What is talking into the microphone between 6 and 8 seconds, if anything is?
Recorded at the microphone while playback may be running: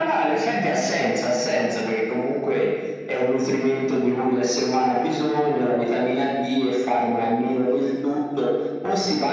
echo only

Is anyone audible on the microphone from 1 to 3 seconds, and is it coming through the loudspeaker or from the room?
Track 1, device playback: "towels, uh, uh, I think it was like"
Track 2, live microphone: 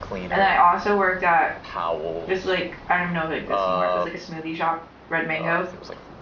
both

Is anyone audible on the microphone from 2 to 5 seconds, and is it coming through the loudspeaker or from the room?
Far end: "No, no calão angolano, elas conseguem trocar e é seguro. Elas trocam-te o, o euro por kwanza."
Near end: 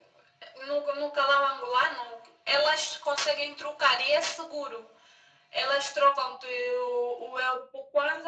echo only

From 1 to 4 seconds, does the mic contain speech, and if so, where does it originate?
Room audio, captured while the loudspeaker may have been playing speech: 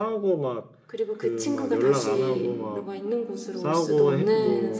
both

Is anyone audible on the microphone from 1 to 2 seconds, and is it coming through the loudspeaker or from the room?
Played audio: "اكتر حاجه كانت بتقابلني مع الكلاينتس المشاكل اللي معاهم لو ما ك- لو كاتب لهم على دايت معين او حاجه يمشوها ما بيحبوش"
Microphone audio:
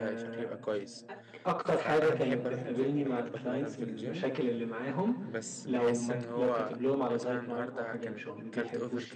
both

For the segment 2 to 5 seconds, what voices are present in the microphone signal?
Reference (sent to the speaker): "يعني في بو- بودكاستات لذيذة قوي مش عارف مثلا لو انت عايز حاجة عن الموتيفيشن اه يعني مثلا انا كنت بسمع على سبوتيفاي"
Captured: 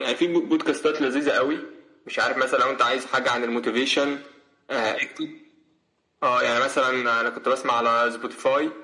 echo only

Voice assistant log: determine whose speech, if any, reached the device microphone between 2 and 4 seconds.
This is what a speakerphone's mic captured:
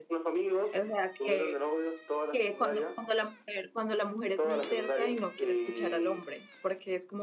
both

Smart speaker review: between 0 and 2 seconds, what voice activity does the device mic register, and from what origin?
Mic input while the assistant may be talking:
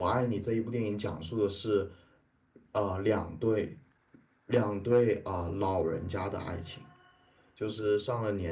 user only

